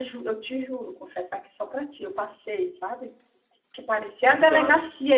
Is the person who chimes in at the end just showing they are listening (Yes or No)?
Yes